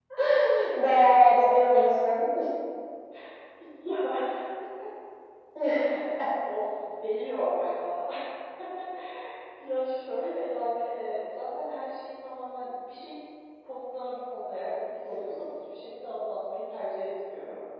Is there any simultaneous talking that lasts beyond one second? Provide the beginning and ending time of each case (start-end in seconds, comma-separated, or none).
none